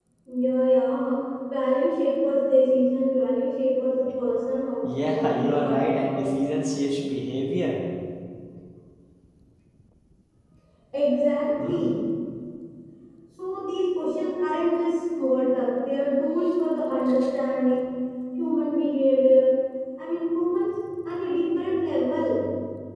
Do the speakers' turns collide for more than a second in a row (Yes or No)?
Yes